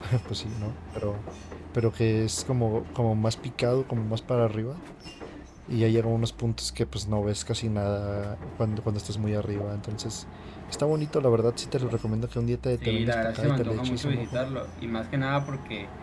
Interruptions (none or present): present